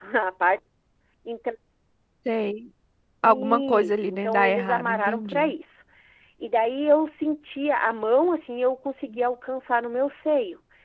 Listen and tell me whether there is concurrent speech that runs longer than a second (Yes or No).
Yes